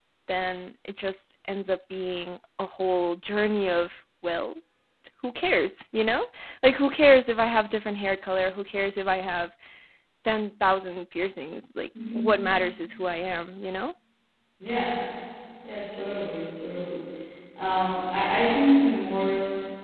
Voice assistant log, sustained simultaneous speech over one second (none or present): none